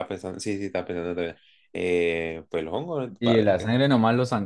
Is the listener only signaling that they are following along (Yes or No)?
No